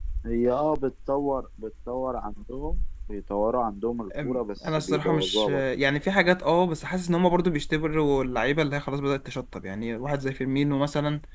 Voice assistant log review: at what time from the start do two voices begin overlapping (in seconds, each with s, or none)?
4.1 s